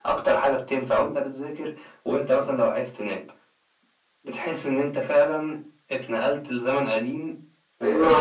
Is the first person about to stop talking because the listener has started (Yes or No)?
Yes